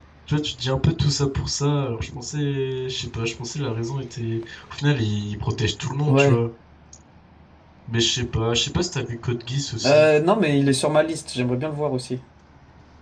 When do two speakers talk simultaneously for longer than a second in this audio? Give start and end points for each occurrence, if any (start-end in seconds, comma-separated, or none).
none